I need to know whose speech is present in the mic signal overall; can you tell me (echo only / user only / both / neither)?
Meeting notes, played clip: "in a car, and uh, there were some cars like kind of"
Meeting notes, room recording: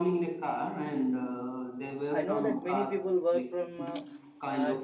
both